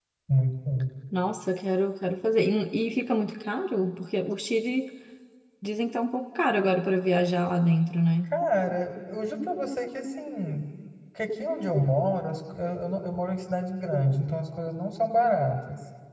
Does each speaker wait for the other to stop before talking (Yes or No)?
Yes